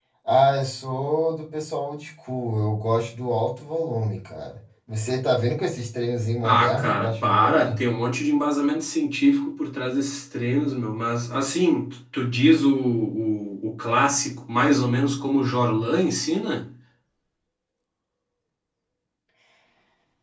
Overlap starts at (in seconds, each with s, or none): 6.4 s